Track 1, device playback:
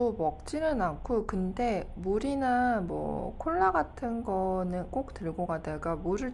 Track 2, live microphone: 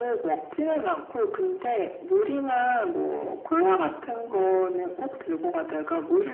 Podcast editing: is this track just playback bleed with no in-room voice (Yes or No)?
Yes